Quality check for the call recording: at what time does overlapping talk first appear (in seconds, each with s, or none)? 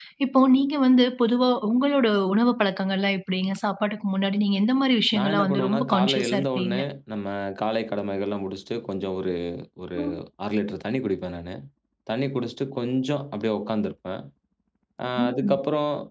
5.2 s